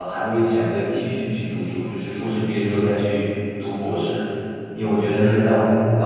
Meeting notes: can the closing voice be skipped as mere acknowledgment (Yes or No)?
Yes